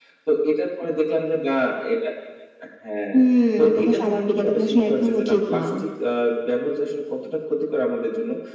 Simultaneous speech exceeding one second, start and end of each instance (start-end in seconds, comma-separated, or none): 3.6-5.6